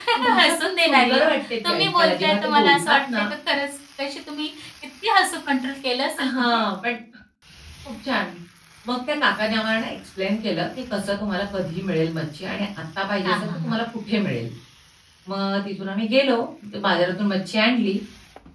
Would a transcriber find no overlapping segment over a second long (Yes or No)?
No